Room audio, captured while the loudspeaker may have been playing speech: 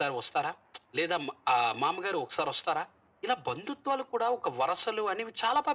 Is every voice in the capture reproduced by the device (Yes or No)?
Yes